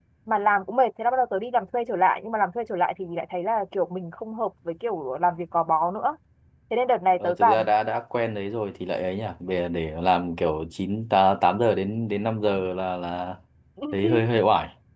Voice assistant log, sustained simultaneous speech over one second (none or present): none